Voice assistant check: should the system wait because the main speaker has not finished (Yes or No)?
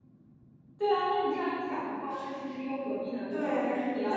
No